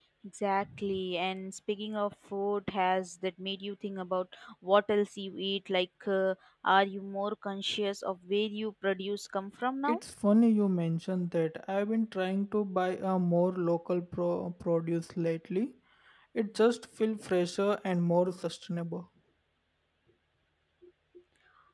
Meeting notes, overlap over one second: none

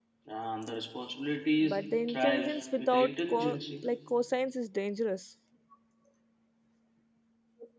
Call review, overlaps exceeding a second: present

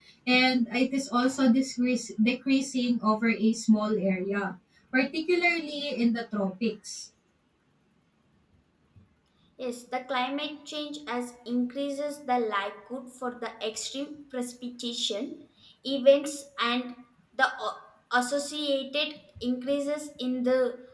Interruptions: none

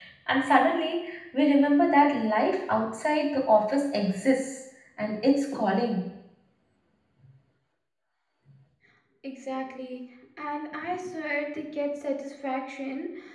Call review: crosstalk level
none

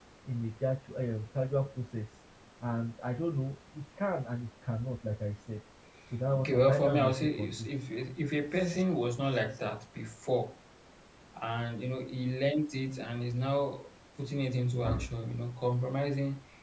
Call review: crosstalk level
present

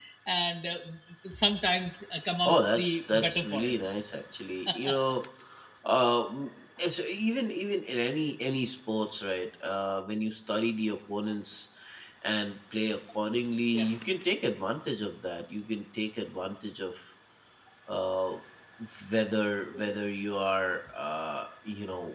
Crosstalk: present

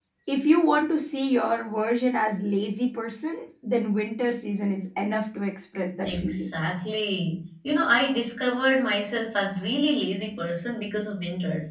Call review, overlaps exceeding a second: none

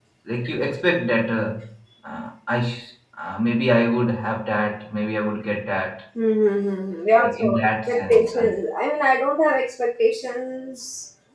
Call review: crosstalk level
present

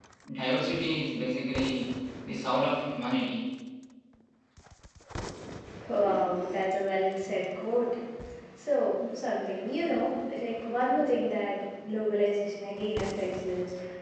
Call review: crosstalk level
none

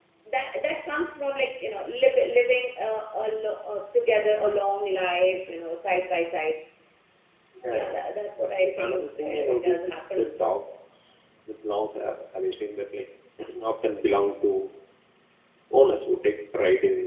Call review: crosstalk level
present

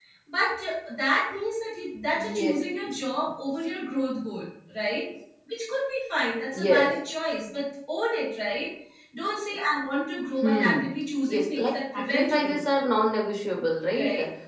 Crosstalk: present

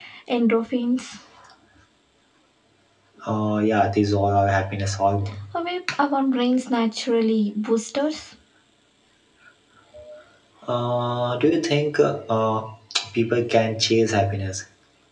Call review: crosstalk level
none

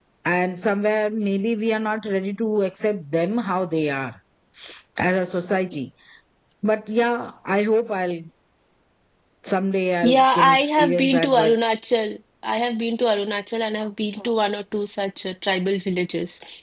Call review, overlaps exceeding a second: present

